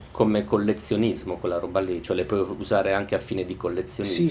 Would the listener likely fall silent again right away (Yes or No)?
No